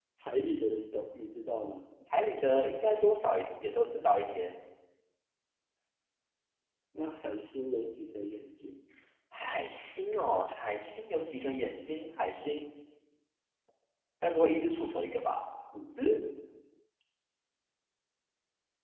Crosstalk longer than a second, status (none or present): none